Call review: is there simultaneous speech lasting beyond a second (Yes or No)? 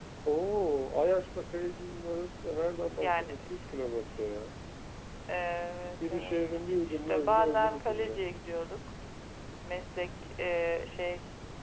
Yes